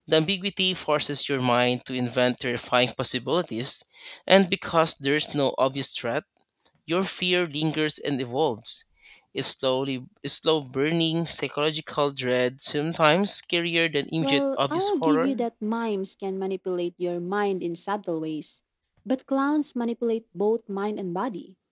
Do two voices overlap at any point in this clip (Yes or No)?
Yes